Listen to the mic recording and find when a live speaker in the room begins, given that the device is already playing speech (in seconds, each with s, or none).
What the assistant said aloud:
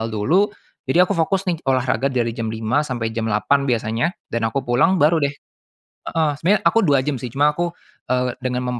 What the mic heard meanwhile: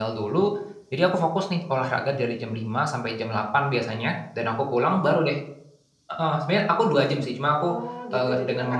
7.5 s